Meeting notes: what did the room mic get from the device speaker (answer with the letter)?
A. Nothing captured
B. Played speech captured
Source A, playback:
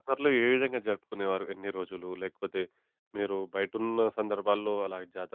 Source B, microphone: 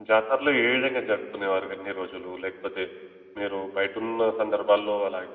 B